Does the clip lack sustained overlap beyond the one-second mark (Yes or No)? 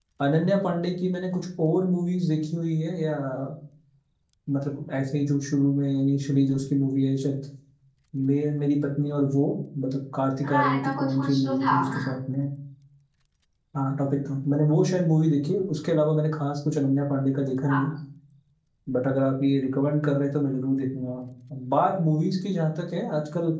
No